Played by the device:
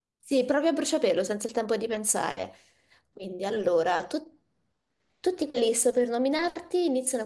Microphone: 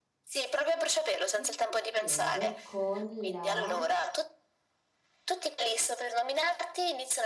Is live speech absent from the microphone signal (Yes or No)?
No